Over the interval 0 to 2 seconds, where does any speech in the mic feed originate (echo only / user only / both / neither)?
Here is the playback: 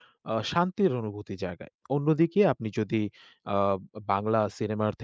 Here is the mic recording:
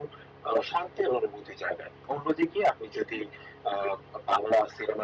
echo only